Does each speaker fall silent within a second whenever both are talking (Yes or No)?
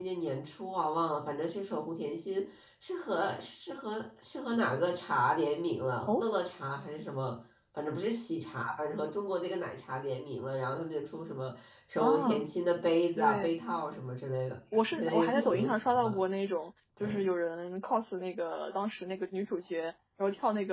No